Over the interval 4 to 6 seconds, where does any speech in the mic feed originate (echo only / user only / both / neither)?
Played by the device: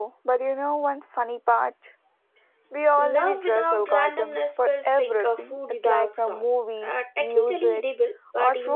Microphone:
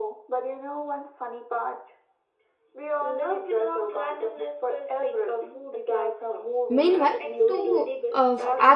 echo only